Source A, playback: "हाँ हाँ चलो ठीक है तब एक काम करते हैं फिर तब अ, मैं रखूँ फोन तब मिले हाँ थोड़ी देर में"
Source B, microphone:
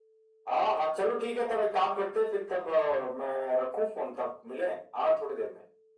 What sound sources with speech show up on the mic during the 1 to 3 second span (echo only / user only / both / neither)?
echo only